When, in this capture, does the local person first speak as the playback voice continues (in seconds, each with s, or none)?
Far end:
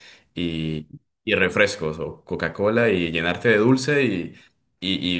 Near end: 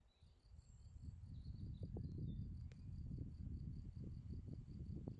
none